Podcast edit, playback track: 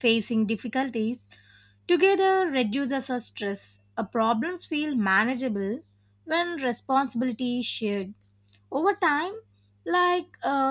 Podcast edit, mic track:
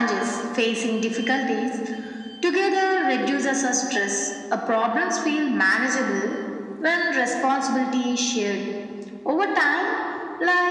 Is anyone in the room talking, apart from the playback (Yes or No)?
No